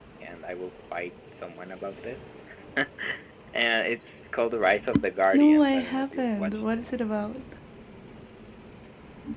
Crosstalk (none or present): present